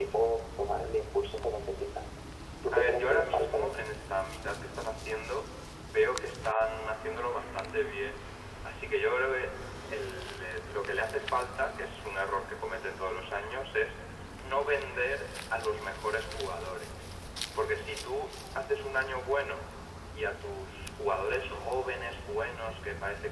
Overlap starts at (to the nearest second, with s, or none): 3 s